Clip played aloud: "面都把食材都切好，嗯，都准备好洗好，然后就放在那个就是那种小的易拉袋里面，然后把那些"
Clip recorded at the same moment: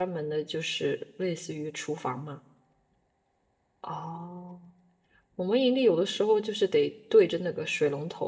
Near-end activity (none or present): present